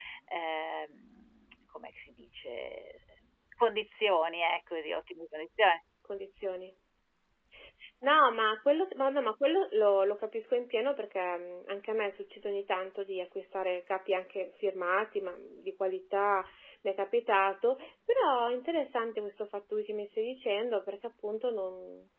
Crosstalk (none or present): none